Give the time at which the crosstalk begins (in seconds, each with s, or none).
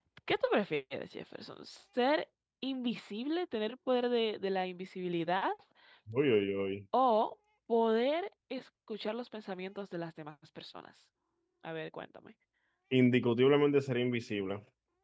none